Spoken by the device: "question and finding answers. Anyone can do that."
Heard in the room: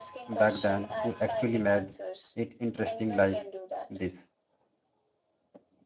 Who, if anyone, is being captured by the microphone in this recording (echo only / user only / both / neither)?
both